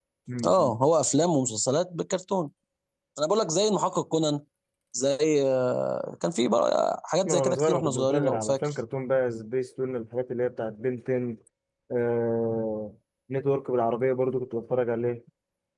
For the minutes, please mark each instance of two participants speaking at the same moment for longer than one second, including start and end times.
7.2-8.8

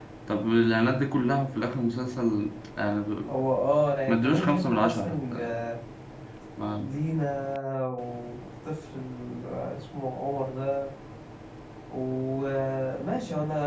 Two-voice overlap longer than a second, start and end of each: 4.1-5.6

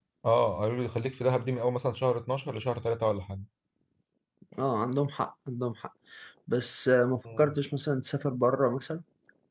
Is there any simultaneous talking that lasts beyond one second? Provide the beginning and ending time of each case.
none

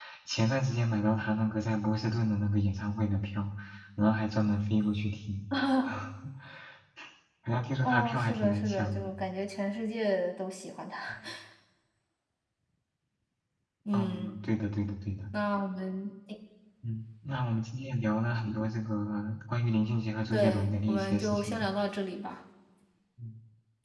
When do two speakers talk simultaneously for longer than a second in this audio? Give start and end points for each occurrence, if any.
7.8-9.1, 20.3-21.7

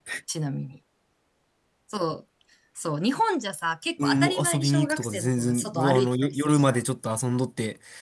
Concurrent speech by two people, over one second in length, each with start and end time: 4.0-6.8

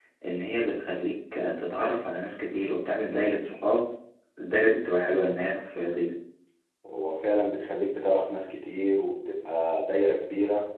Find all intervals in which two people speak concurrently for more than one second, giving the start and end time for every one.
none

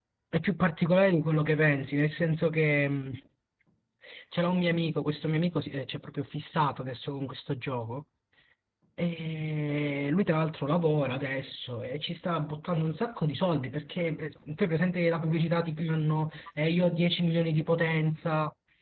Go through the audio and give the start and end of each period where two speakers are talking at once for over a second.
none

